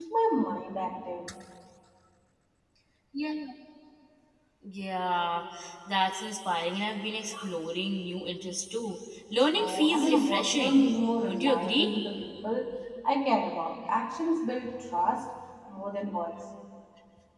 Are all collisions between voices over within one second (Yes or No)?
No